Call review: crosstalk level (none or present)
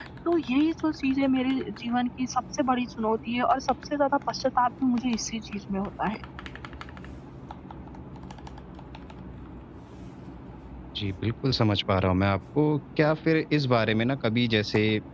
none